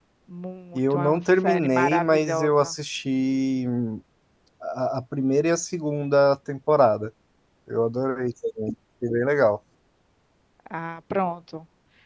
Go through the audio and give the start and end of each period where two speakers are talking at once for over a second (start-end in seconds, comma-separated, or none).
0.7-2.7